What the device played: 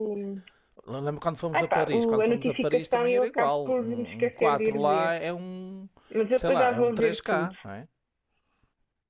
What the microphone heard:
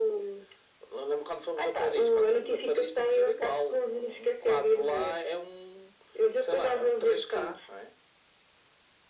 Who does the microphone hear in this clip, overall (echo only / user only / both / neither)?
echo only